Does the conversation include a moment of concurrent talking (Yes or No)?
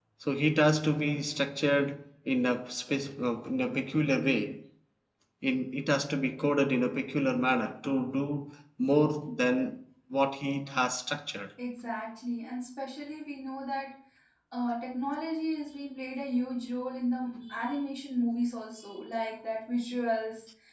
No